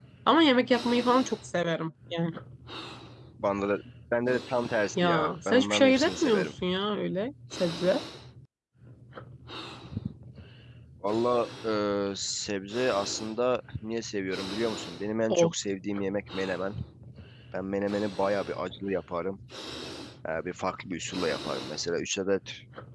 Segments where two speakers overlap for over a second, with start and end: 5.0-6.5

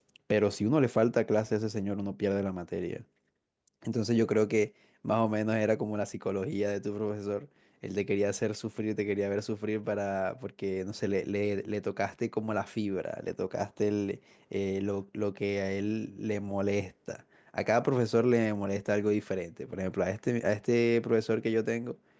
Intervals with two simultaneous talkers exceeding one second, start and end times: none

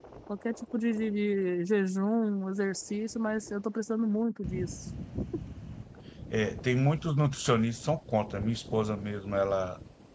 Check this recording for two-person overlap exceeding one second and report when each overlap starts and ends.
none

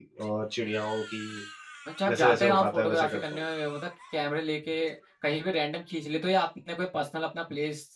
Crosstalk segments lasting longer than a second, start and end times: 2.1-3.4

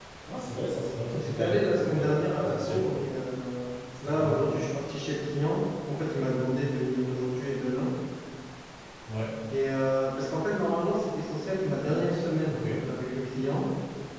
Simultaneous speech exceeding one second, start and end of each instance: 1.1-3.0

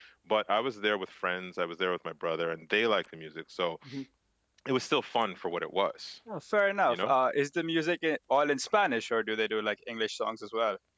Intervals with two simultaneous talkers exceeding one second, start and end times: none

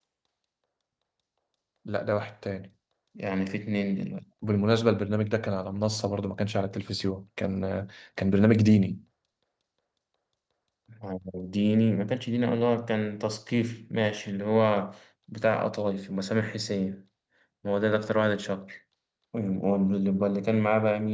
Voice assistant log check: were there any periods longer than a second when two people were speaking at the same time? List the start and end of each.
none

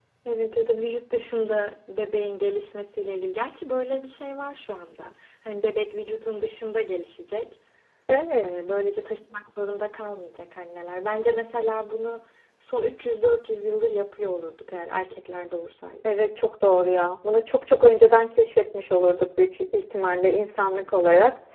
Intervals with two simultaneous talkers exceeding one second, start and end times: none

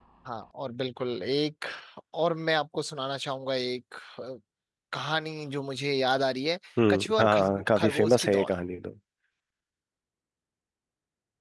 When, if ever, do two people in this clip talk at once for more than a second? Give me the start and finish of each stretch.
6.9-8.5

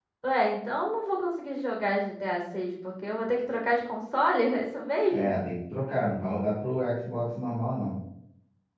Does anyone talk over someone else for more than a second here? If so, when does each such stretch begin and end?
none

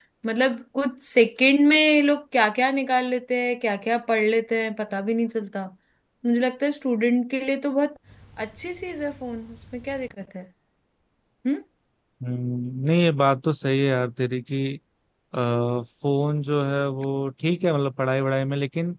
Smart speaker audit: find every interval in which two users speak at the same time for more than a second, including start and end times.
none

